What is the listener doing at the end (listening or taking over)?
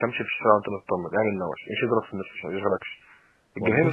listening